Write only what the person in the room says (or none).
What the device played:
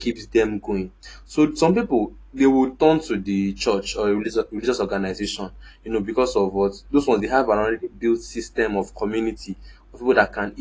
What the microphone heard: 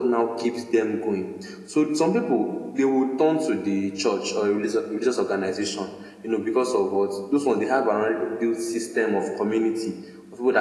none